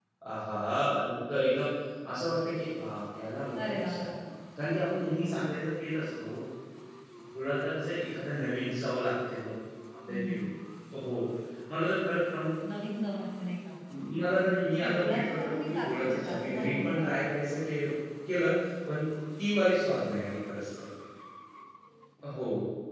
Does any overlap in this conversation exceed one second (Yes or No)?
Yes